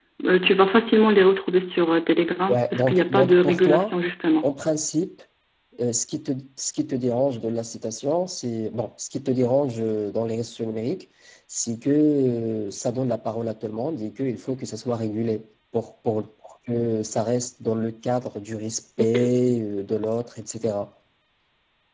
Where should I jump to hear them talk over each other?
2.5 s

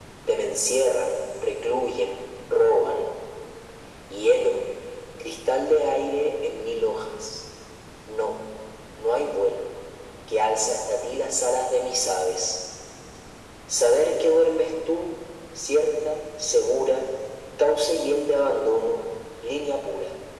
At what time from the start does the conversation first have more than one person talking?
none

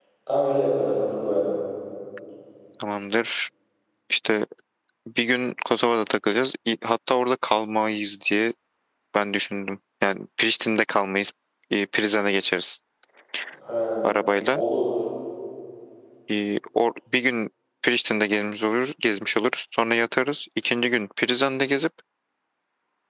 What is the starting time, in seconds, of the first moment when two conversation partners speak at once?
none

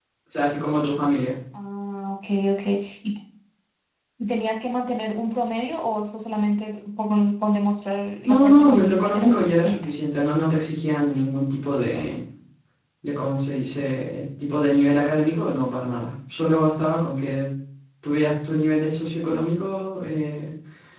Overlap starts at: 8.3 s

